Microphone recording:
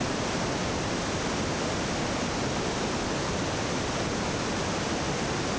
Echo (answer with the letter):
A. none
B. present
A